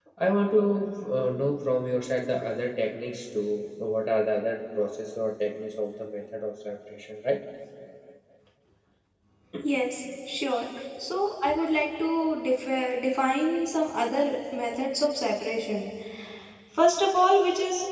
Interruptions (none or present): none